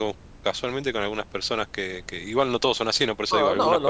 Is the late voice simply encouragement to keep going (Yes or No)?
No